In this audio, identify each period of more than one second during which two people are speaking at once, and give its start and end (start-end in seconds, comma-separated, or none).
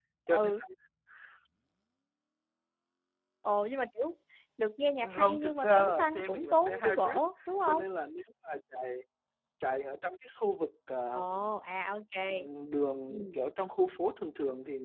5.0-7.2